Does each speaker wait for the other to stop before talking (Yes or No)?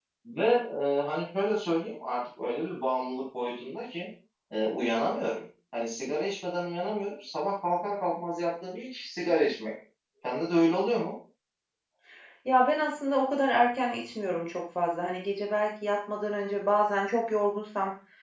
Yes